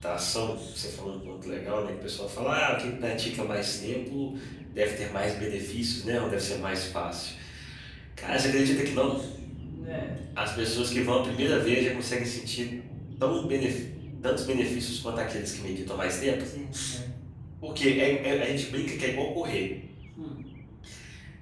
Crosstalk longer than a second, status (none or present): none